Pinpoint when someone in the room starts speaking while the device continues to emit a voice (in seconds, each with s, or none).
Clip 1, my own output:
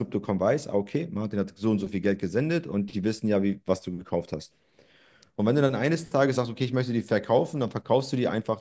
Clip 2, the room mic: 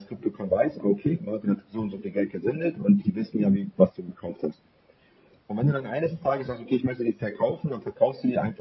none